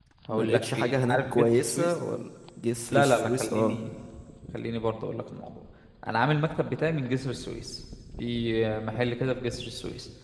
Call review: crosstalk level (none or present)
present